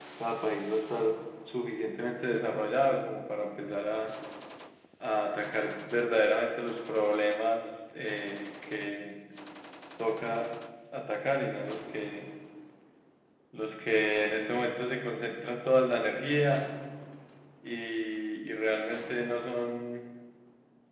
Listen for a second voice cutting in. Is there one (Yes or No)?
No